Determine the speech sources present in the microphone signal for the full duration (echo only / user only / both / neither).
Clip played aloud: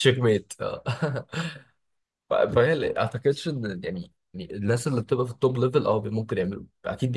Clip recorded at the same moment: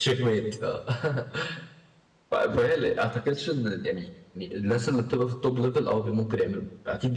echo only